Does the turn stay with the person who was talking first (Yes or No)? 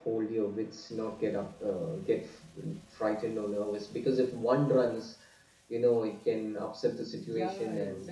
No